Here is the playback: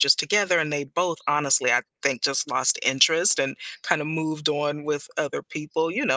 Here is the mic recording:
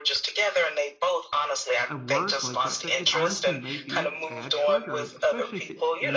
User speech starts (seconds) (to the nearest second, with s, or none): 2 s